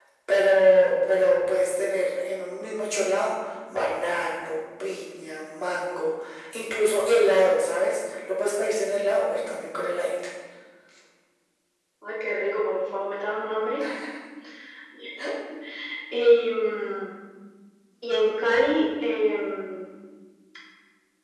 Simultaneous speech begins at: none

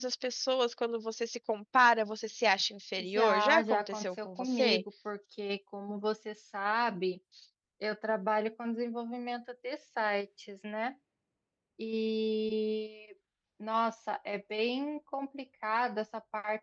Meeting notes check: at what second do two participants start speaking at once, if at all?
3.0 s

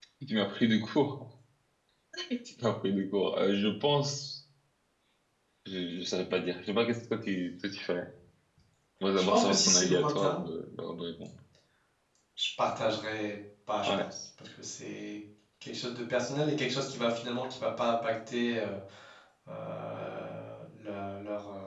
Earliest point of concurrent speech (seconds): 9.2 s

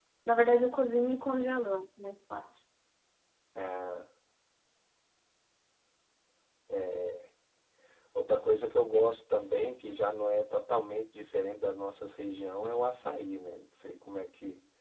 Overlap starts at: none

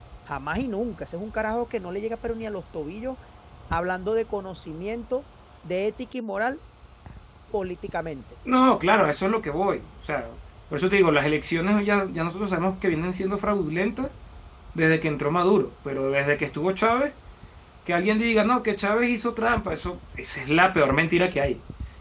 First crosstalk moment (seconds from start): none

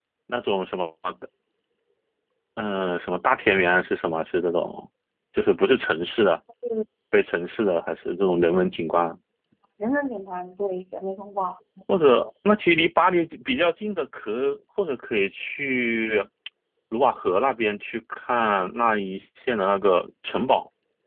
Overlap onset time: none

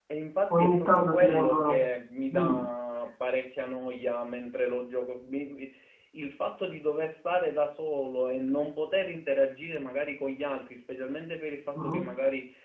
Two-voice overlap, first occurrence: 0.5 s

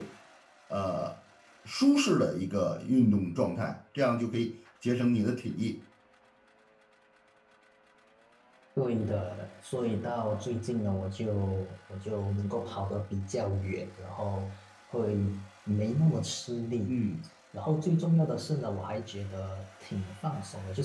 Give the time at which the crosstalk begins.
none

